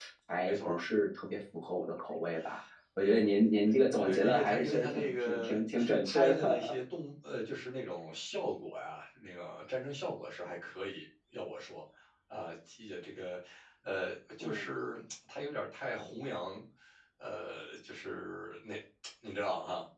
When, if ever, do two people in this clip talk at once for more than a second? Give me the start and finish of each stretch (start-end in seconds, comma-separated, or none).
4.1-6.7